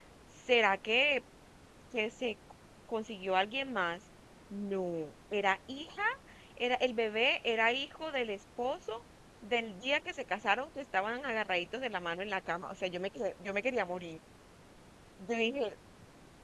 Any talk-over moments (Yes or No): No